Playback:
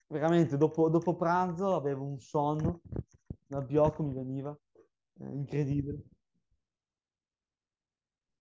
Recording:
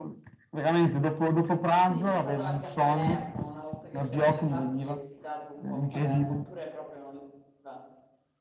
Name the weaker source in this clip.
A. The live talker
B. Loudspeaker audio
A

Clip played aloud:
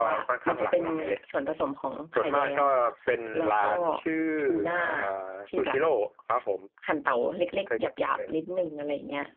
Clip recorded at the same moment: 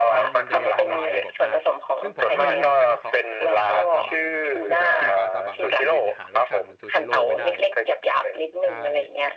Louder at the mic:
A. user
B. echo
B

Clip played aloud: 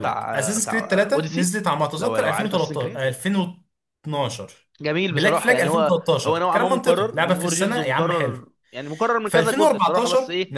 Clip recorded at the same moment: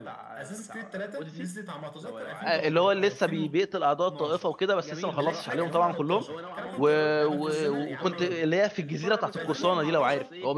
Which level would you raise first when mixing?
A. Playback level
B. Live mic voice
A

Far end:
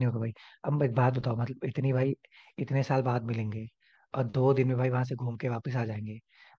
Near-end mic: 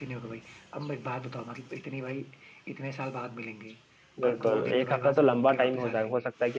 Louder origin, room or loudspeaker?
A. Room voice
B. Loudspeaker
A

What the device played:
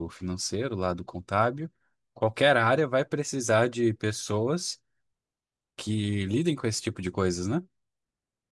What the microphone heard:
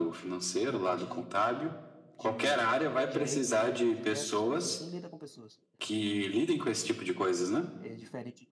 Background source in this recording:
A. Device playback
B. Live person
B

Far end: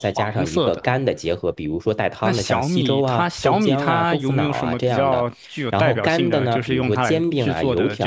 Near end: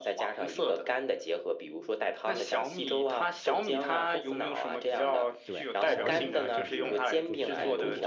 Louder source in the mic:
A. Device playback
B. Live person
A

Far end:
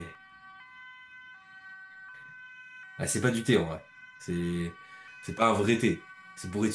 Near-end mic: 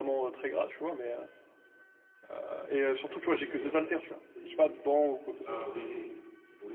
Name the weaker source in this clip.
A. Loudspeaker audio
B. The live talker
A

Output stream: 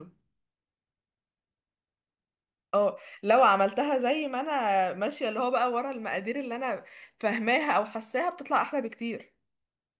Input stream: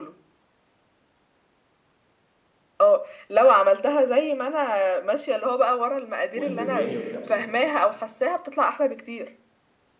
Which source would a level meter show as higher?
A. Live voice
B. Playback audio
B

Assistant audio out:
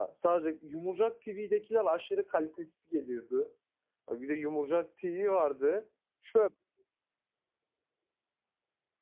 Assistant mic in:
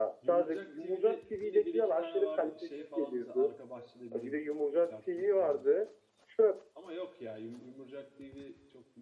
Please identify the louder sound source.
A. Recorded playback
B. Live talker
A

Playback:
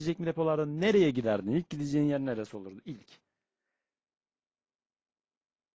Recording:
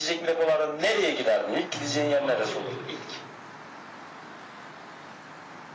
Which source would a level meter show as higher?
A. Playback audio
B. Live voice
A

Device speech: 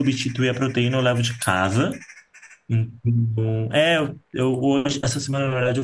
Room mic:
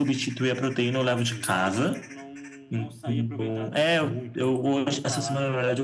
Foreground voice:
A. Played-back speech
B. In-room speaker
A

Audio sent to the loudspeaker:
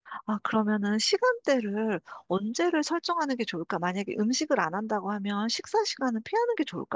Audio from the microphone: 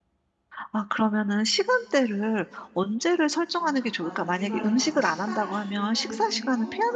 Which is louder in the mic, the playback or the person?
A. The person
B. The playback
B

